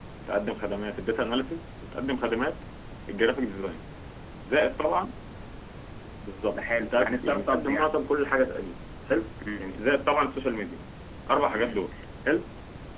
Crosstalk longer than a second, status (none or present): present